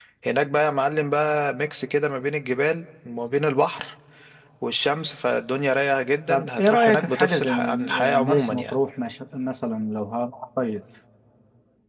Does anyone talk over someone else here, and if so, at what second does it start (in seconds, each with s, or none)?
6.3 s